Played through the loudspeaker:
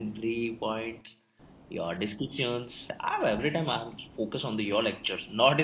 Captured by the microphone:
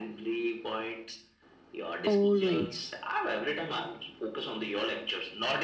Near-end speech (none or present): present